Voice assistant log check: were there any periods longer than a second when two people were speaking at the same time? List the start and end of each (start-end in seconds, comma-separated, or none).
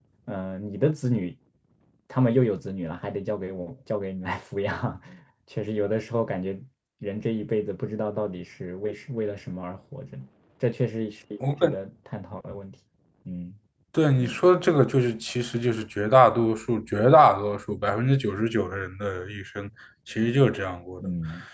none